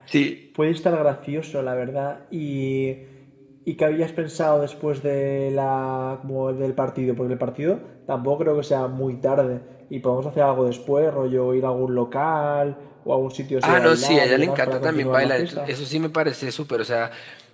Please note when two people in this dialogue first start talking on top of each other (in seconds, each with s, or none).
13.6 s